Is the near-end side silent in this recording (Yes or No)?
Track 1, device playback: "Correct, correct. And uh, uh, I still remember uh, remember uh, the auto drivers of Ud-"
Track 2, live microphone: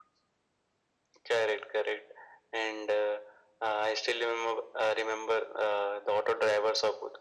Yes